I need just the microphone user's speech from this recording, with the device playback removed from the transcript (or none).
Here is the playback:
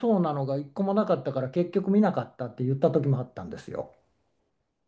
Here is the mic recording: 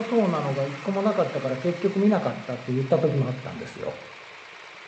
none